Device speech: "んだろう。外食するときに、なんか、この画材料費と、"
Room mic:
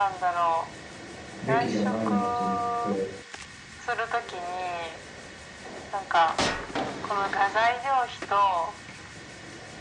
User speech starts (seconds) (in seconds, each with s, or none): 1.4 s